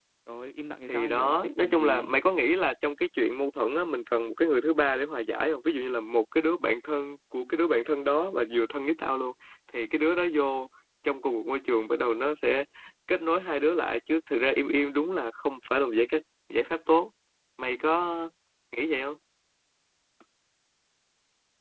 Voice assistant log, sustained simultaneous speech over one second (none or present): present